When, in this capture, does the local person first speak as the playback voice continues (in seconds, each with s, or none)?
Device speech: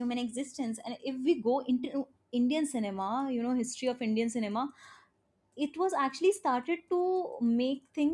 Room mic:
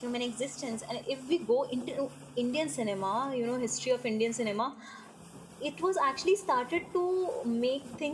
none